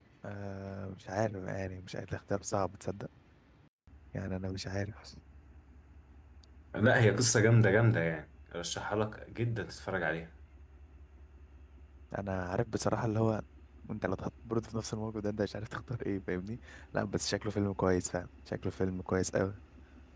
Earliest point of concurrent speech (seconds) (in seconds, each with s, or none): none